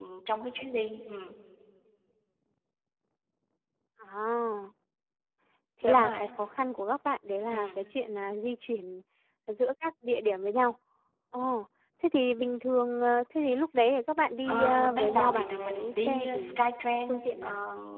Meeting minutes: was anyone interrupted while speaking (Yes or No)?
Yes